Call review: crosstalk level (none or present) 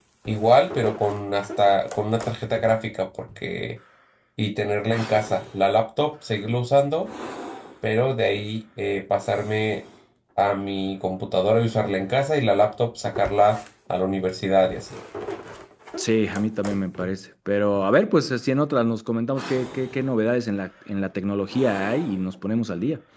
none